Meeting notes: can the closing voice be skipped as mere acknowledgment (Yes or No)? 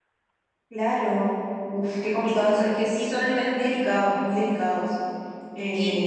No